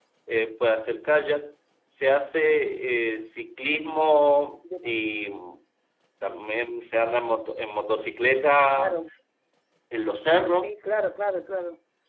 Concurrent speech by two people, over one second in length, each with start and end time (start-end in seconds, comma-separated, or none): none